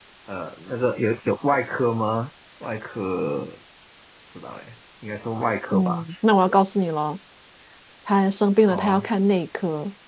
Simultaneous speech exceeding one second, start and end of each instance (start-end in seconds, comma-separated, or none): none